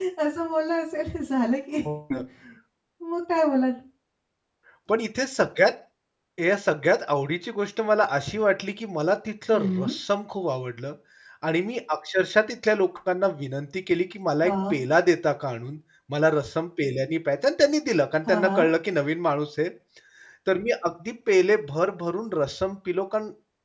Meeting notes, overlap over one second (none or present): none